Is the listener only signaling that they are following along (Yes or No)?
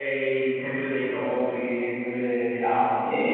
Yes